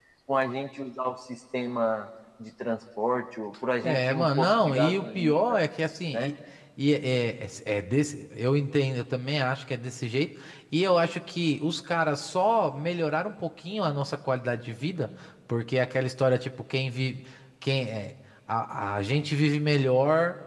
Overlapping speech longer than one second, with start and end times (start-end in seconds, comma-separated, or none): 3.8-5.5